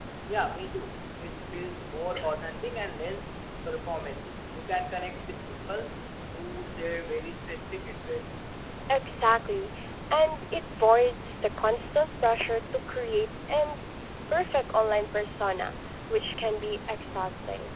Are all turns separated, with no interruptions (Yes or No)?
Yes